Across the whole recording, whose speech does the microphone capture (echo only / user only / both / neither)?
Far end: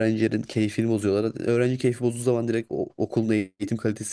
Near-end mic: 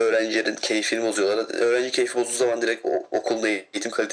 echo only